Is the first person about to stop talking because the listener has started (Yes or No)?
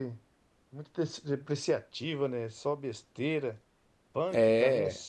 No